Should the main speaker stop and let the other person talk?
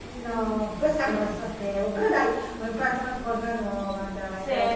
Yes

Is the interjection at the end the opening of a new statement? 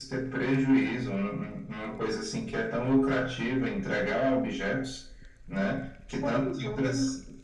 No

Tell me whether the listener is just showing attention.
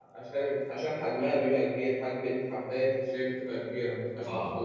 No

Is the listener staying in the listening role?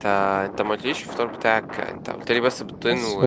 No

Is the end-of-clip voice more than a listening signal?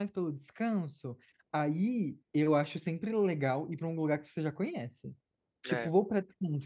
No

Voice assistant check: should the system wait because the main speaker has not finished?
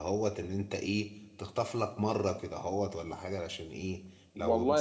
No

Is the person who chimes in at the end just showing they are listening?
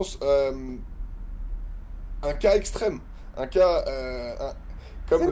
No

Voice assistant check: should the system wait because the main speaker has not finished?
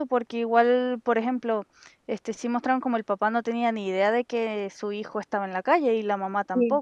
No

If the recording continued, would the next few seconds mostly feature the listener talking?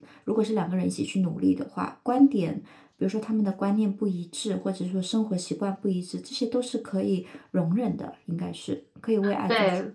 Yes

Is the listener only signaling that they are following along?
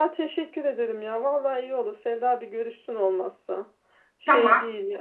No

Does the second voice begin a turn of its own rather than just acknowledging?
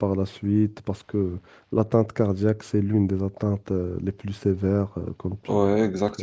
Yes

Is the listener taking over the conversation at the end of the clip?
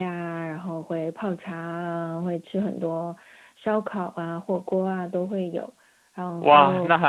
Yes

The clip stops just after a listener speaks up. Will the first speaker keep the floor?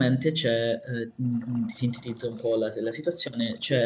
Yes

